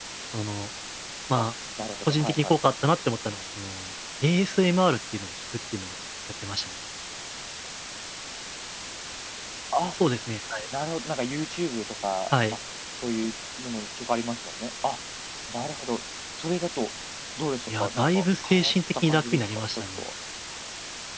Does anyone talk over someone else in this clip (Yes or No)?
Yes